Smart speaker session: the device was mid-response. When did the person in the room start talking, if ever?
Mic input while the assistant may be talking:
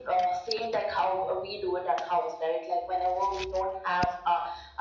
none

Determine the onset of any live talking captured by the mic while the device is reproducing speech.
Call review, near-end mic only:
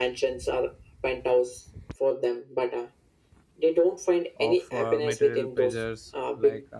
4.3 s

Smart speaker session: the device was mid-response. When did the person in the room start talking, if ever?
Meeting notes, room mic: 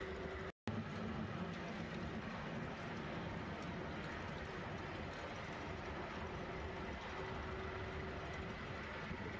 none

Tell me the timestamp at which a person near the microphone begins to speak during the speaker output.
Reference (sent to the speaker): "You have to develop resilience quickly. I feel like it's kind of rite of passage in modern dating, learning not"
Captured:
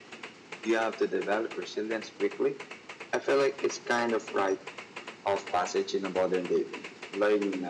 none

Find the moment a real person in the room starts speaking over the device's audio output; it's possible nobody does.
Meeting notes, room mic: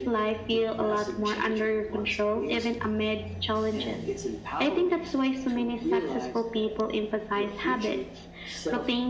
none

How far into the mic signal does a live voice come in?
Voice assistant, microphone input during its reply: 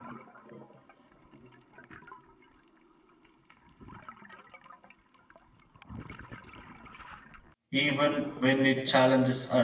7.7 s

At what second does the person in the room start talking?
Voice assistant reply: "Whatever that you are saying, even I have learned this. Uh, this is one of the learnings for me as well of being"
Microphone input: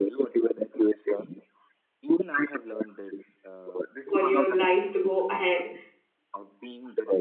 4.1 s

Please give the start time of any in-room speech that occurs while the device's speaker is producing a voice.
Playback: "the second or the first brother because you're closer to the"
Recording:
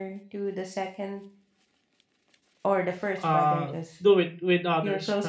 3.2 s

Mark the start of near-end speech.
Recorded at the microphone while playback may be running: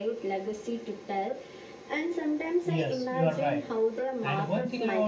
2.6 s

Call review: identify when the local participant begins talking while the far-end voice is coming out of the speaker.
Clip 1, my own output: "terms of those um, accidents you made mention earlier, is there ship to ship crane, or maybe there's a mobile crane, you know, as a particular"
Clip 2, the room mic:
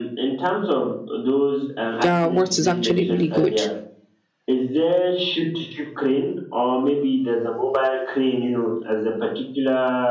2.0 s

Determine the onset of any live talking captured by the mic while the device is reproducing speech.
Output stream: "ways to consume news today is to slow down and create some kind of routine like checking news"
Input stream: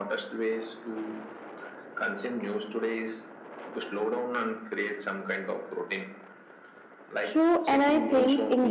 7.2 s

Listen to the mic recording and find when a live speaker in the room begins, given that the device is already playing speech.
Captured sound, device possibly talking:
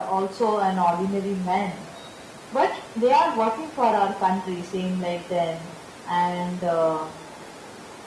none

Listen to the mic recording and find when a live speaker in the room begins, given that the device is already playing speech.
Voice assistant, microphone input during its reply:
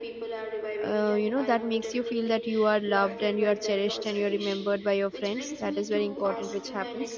0.8 s

